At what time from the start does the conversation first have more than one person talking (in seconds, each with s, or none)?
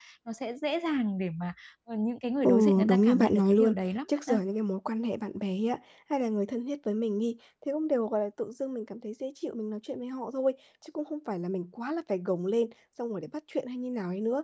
2.4 s